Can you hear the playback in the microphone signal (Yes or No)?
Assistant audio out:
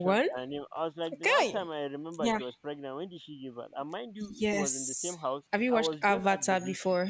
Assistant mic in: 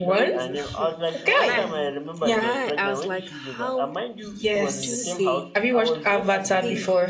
Yes